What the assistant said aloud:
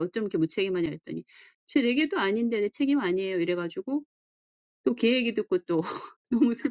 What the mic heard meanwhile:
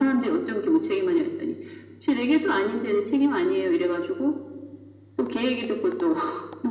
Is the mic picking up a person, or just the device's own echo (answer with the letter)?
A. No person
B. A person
A